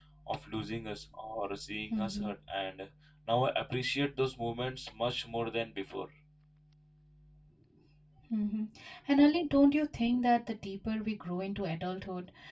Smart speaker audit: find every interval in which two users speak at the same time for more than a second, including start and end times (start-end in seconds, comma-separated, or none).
none